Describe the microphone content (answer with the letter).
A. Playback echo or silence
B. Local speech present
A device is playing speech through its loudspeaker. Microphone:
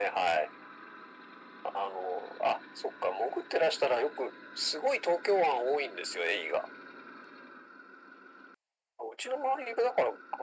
A